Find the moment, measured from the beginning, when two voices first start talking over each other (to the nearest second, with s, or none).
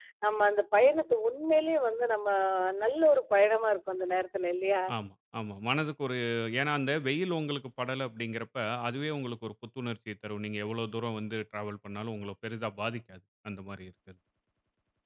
none